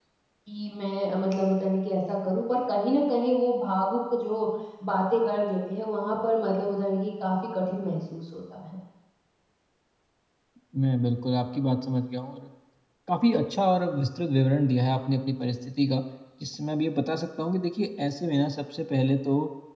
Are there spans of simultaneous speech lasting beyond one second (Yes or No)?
No